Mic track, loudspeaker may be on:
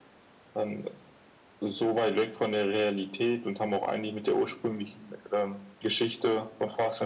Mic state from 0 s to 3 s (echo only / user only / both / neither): echo only